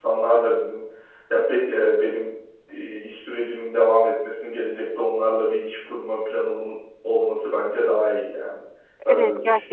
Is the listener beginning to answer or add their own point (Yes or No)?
Yes